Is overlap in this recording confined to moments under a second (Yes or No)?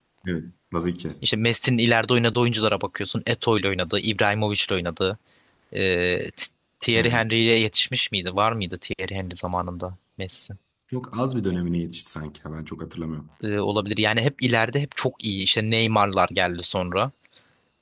Yes